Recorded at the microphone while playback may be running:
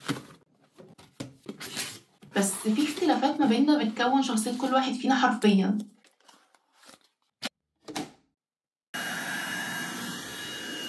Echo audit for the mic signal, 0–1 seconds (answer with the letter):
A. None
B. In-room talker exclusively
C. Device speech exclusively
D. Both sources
A